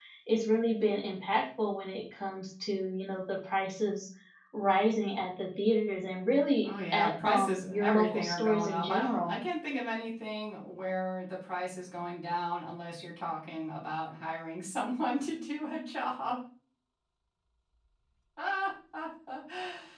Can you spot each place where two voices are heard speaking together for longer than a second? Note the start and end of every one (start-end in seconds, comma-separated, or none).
6.7-9.3